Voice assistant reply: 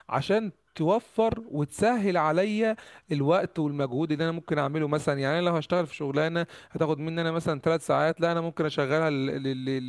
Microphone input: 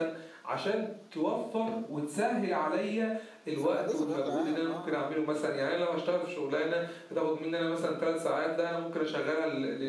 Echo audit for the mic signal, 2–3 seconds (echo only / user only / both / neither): echo only